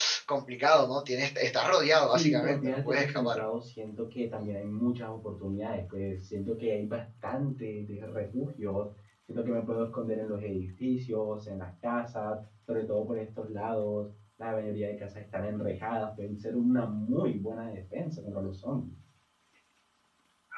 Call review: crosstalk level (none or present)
present